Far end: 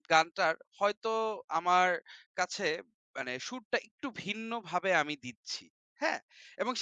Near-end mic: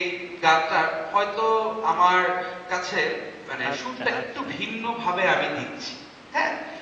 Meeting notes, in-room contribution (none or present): present